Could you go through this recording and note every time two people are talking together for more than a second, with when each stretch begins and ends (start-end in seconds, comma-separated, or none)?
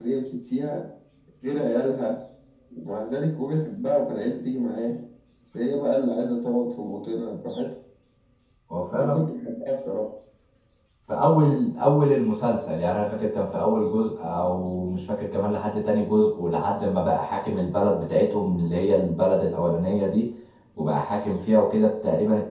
none